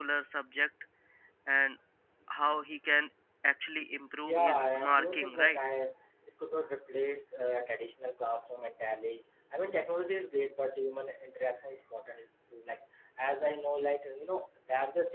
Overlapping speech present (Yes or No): Yes